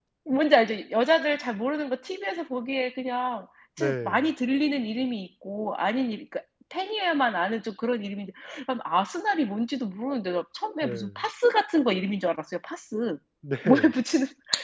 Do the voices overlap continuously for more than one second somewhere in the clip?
No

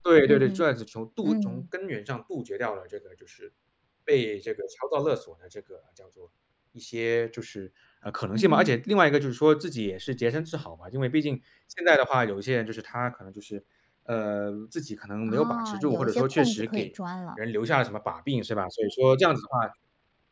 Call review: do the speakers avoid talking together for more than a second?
No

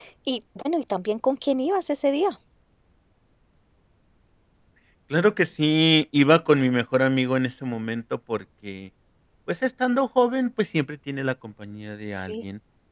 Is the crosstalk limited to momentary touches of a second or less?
Yes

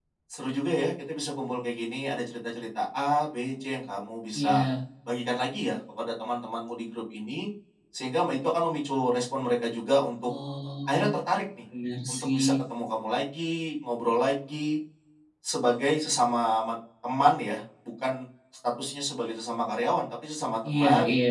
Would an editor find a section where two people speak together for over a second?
No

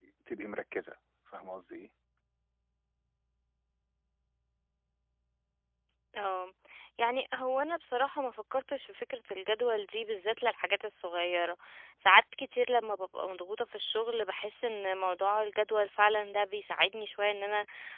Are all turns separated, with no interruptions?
Yes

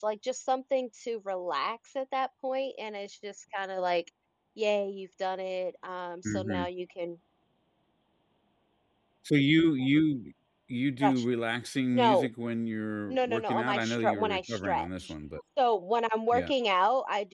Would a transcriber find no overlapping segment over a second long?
No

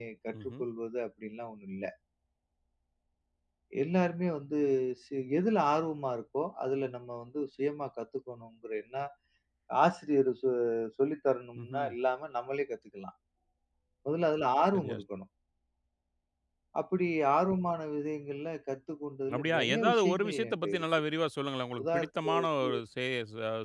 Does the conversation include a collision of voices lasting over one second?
Yes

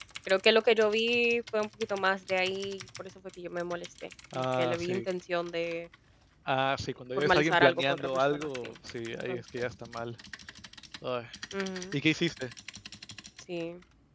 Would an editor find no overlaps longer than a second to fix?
No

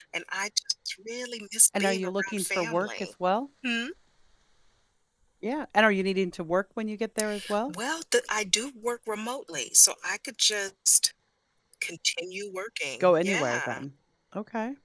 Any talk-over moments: Yes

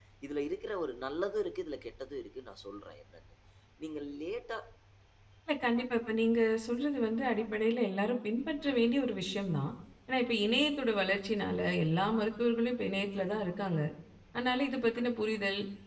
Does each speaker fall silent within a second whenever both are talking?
Yes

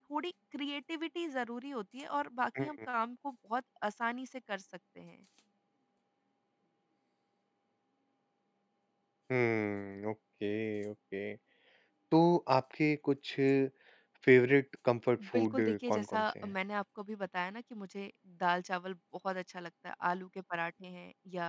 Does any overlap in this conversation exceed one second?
Yes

